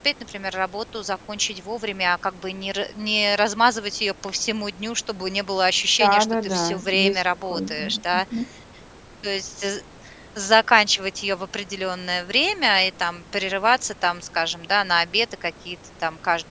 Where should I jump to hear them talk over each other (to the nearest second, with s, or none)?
6 s